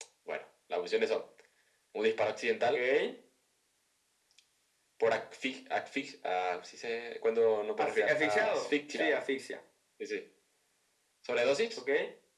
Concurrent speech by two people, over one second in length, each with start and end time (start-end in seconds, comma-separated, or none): 7.8-9.2